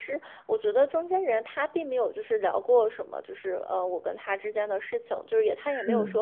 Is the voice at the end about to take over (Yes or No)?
No